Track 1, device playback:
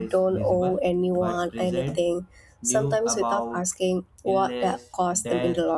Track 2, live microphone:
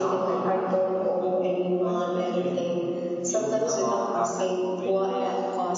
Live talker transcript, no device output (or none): after covid